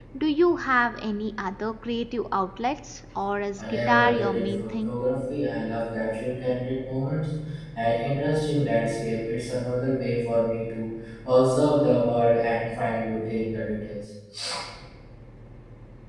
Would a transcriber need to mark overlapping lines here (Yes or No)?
Yes